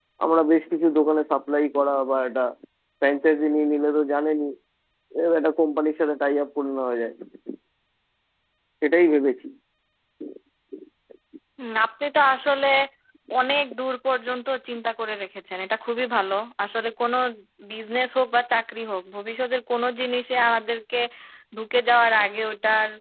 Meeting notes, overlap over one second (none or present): none